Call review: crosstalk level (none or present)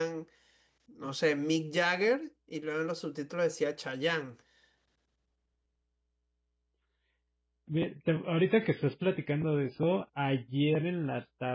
none